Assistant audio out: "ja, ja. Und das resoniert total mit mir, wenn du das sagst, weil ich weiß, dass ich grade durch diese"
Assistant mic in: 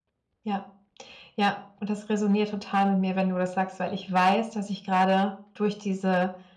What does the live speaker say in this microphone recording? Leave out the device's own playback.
none

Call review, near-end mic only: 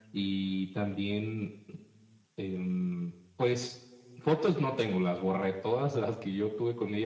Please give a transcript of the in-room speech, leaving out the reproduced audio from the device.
none

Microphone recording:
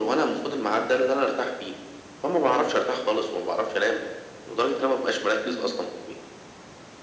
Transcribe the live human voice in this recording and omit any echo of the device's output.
اهم.

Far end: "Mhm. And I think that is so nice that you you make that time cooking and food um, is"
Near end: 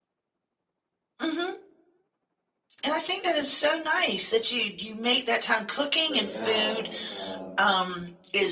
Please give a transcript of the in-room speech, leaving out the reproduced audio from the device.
right now um,

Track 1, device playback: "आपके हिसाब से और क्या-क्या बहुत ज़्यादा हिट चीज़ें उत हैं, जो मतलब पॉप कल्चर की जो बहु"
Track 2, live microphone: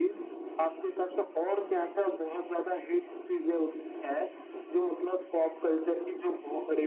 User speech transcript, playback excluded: none

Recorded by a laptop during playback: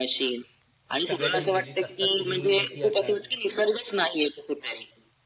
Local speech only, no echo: सगळेजण बिझीच असतात. तुम्हीही बिझी असाल.

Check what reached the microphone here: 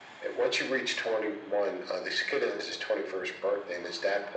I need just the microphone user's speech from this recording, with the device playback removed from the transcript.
none

